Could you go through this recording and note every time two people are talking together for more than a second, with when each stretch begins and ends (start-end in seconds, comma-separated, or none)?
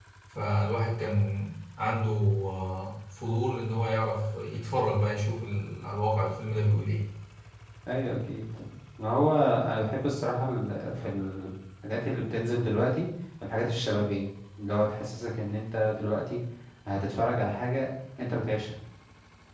none